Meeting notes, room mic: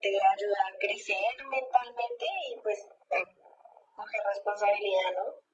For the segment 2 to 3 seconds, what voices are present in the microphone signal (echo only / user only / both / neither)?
echo only